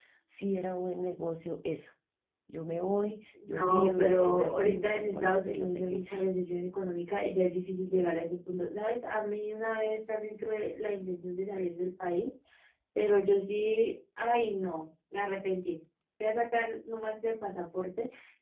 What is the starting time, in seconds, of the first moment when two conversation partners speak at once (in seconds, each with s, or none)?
3.4 s